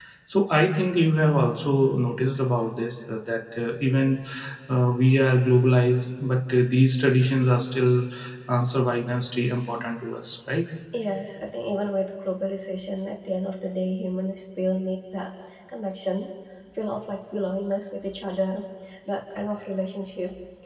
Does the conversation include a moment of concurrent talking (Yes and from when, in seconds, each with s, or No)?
No